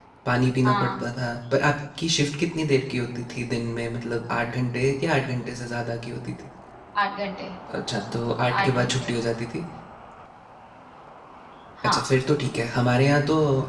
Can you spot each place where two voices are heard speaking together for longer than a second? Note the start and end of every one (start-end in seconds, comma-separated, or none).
none